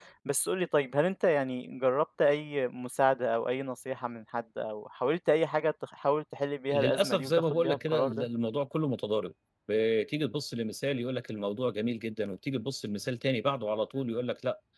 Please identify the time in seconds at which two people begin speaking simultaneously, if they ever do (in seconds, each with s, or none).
6.7 s